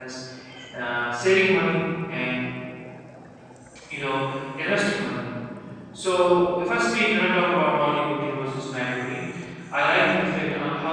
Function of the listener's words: listening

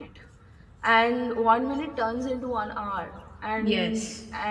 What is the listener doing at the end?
listening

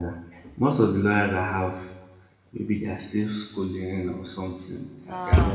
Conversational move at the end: taking over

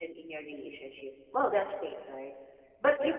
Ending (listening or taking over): listening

